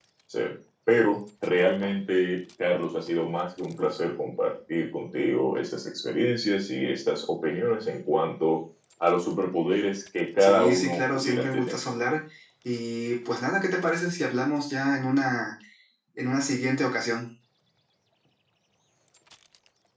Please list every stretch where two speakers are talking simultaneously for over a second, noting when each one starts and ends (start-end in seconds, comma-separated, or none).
10.4-11.8